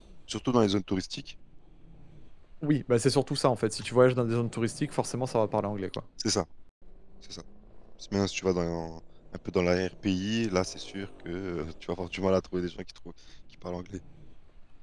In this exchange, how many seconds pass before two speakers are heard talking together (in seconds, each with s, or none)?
none